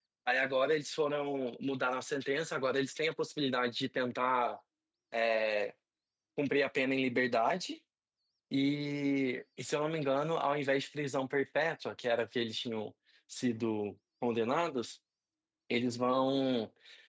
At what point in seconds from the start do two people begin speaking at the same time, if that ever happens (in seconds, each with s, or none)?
none